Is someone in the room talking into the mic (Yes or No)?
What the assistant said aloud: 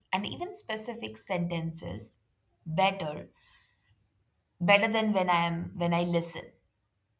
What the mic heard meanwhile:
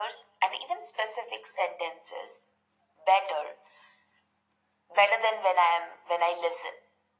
No